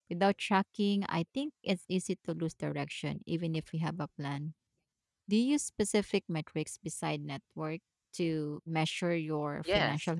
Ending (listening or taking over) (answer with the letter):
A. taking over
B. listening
A